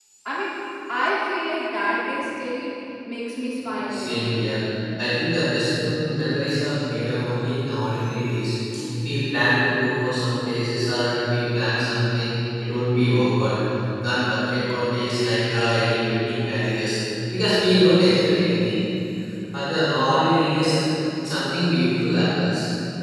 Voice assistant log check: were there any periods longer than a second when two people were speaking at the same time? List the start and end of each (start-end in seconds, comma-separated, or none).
none